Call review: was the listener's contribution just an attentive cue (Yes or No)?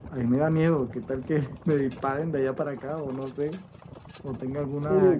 Yes